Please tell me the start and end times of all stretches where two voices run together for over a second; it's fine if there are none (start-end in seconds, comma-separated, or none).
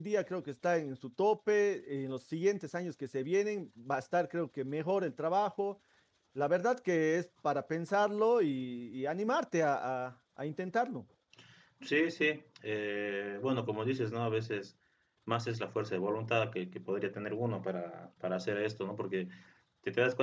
none